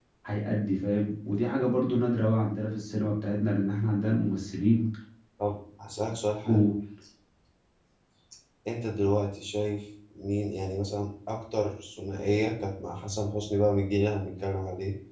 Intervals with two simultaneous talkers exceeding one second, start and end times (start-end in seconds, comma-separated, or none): none